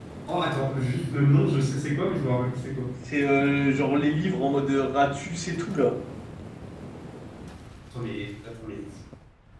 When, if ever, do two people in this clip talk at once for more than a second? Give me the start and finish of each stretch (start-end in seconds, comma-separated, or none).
none